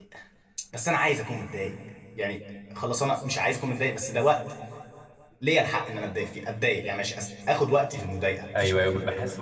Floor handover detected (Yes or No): Yes